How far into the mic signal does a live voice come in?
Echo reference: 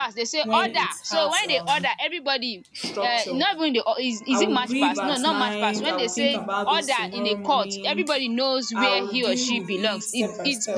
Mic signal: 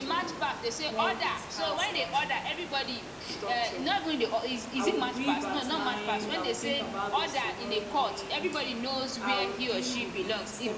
none

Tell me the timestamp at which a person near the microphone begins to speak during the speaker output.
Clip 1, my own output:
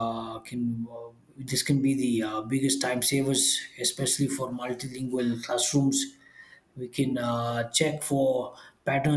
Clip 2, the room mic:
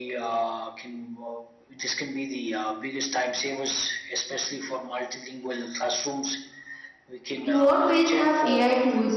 7.4 s

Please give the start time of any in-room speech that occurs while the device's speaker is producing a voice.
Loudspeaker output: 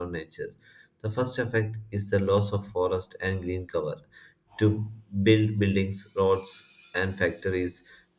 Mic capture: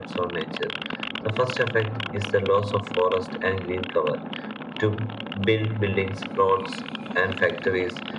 none

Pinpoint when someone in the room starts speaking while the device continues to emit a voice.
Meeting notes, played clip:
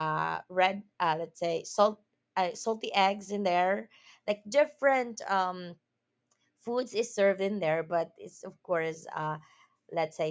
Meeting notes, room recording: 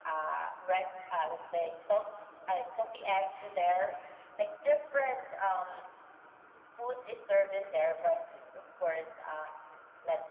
none

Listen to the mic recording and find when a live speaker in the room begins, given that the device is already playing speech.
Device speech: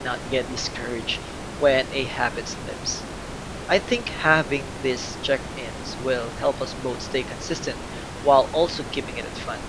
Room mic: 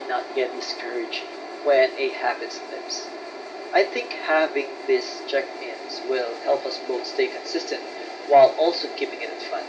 none

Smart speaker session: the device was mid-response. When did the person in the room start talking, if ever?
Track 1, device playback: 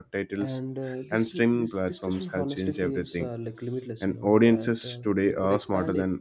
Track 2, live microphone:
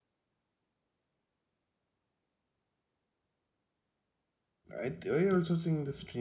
4.8 s

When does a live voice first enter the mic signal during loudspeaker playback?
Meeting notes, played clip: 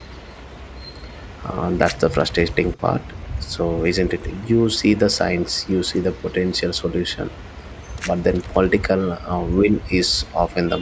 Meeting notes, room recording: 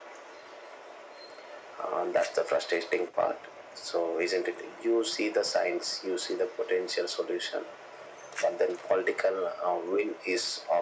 none

